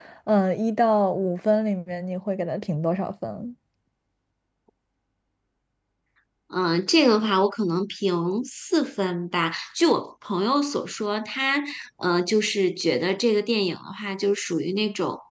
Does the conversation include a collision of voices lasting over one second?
No

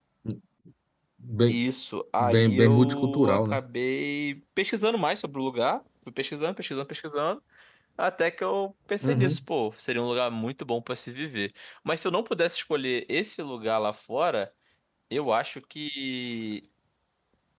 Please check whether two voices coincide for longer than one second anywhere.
Yes, from 2.2 s

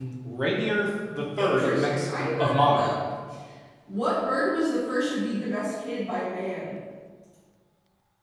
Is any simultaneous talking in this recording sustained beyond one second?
Yes, from 1.4 s

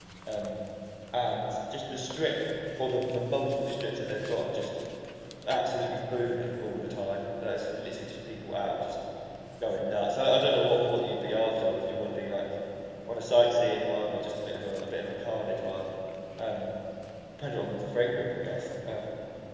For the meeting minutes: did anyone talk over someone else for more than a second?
No

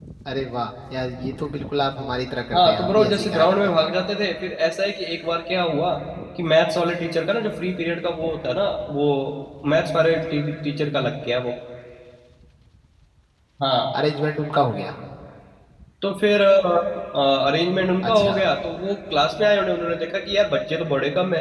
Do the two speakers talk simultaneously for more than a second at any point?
Yes, from 2.5 s

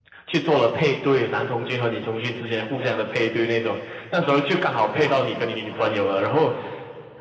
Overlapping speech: No

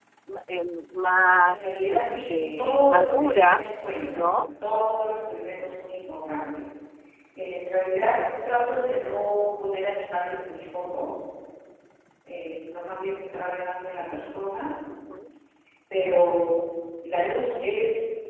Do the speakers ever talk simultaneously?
Yes, from 1.4 s

